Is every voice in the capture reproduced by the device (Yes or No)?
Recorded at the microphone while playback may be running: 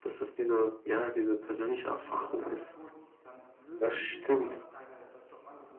No